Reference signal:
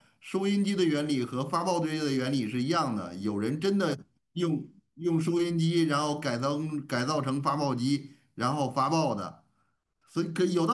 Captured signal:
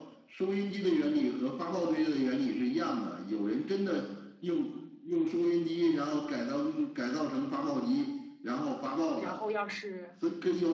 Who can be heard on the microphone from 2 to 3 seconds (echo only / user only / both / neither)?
echo only